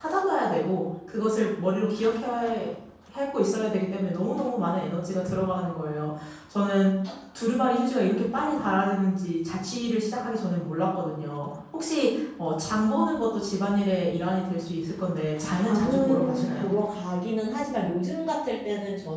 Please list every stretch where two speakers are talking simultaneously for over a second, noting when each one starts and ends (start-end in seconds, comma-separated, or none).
15.4-16.7